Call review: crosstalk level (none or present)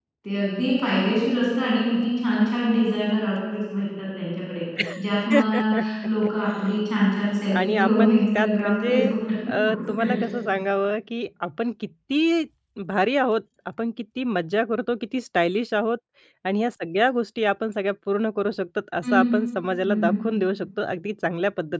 present